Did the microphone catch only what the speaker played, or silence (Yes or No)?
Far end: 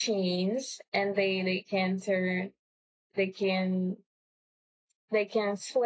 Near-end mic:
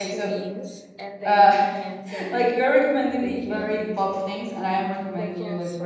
No